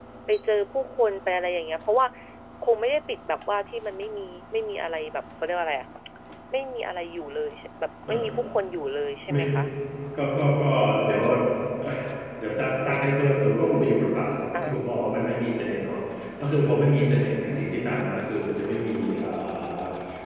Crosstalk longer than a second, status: none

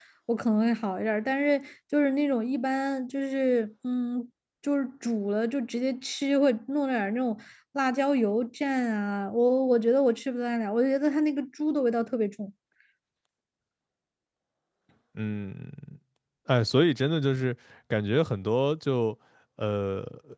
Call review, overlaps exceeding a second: none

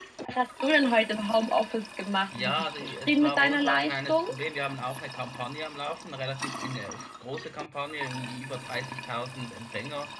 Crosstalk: present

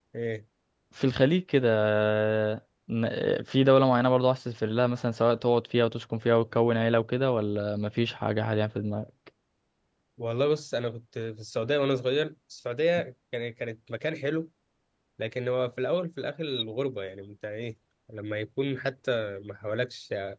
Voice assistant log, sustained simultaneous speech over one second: none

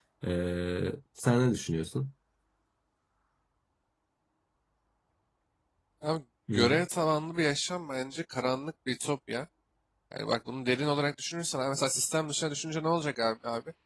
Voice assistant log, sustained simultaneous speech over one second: none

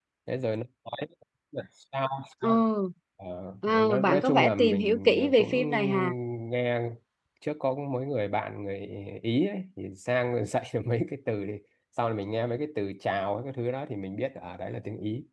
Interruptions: present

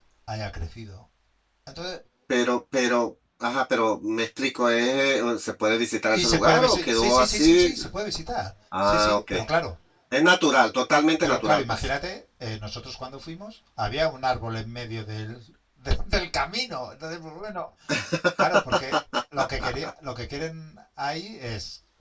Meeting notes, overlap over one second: present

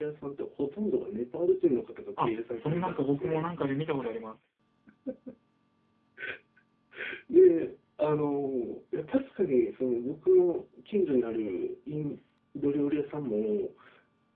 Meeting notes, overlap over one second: present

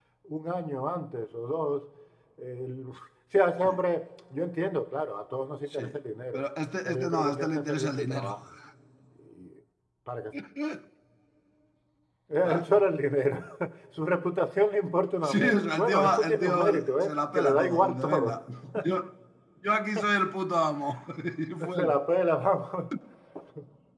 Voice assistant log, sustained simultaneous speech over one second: present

